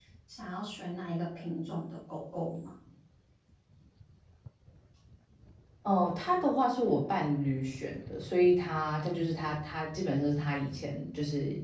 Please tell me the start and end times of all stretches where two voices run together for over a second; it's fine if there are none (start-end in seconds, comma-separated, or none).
none